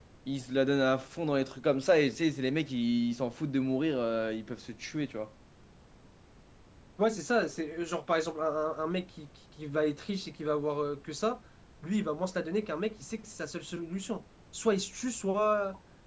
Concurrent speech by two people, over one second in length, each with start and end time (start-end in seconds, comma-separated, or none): none